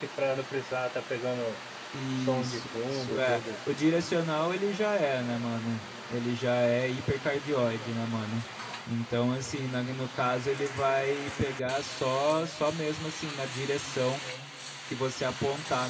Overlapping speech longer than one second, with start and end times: 2.2-3.4

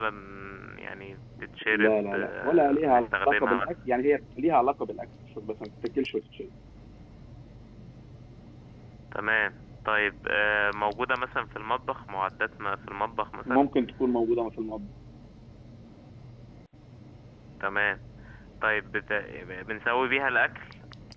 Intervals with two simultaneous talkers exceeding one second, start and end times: 1.7-3.7

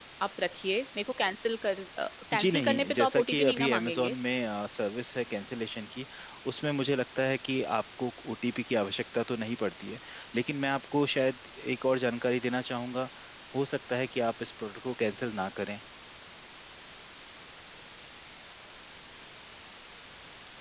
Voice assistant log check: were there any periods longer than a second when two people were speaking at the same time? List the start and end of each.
2.4-4.2

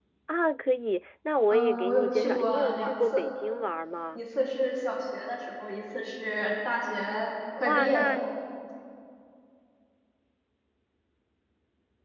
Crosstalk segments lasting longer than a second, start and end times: 1.5-3.2

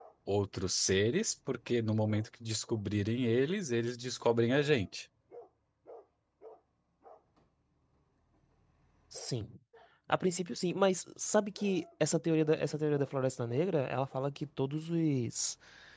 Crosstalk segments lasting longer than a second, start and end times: none

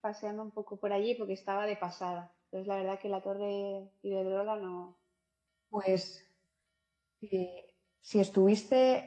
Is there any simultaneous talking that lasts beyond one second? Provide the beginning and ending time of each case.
none

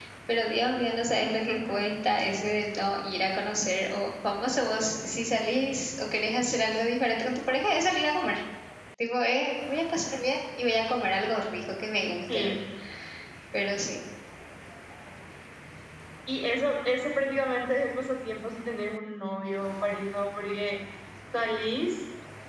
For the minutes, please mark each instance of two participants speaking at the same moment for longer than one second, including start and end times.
none

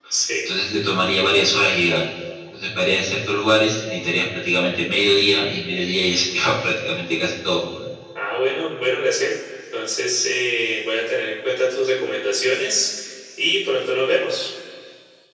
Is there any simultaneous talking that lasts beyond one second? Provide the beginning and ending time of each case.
none

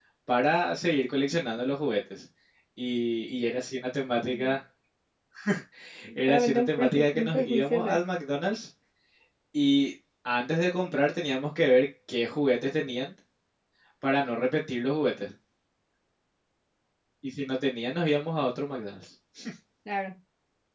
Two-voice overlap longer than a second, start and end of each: 6.3-7.8

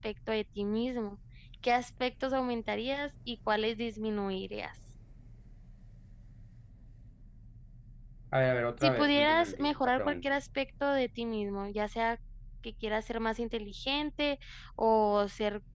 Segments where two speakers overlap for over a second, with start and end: 8.8-10.3

